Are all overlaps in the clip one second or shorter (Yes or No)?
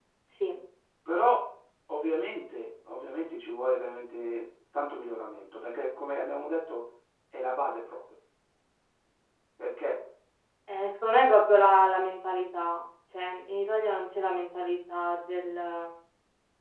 Yes